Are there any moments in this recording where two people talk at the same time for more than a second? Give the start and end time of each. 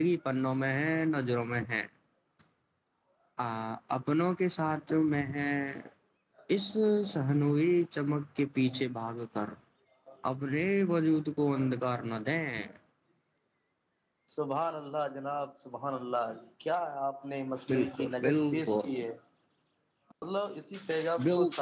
17.7-19.0

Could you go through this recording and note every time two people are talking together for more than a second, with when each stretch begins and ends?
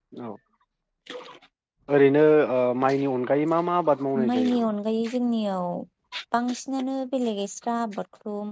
none

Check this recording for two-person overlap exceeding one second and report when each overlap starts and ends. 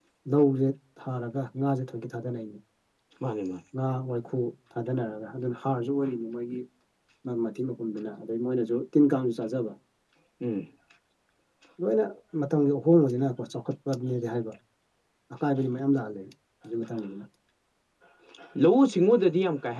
none

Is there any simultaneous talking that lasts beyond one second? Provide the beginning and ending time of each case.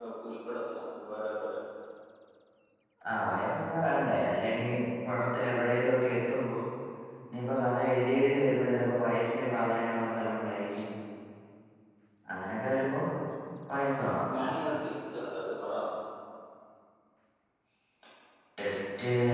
none

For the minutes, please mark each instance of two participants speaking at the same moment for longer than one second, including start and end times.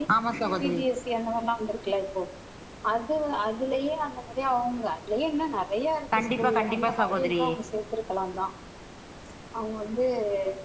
6.2-7.4

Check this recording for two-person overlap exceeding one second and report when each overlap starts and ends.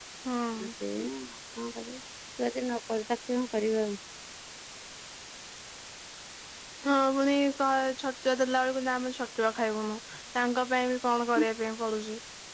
none

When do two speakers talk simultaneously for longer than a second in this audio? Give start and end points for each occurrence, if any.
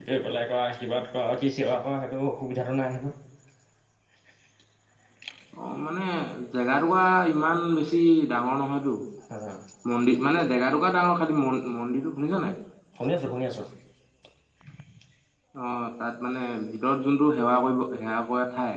none

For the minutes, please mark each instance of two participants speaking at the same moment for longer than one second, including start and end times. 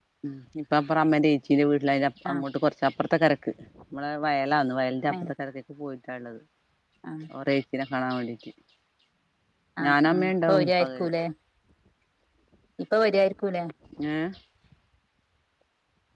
9.8-11.1

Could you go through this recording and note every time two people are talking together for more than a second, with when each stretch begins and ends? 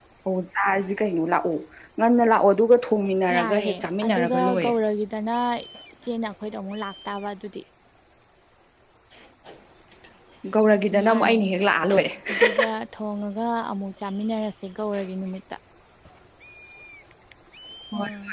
3.3-4.7

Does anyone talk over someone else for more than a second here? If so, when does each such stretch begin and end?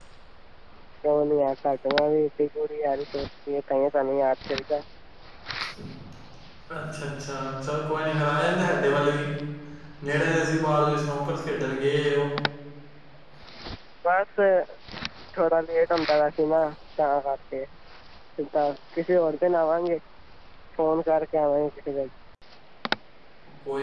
none

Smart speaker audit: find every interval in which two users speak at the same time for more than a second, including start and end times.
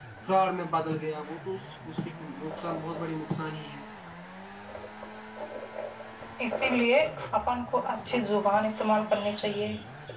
none

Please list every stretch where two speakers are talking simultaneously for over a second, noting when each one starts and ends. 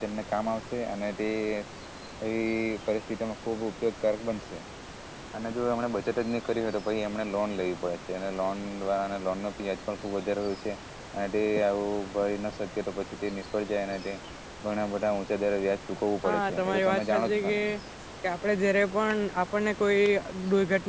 16.2-17.6

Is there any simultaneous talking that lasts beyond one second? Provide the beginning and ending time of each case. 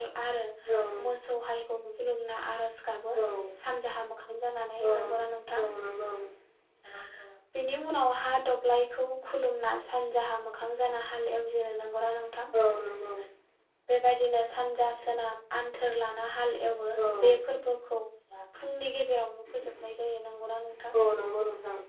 none

